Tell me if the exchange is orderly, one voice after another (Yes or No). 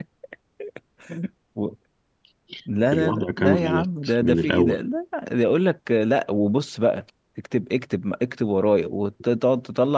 No